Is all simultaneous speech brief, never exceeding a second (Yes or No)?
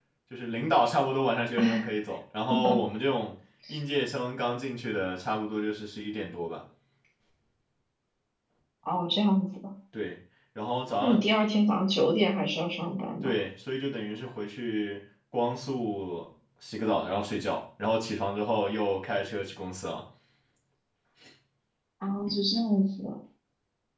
Yes